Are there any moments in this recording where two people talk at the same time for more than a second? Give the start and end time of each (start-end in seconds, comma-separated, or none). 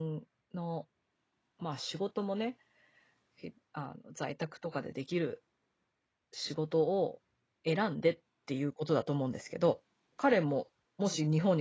none